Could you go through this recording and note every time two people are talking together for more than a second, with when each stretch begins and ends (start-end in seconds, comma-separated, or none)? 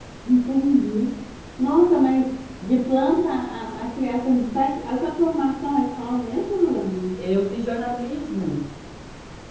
none